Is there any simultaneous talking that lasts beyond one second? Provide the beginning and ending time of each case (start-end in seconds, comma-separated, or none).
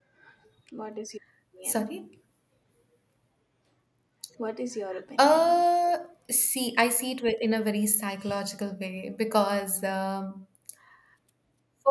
none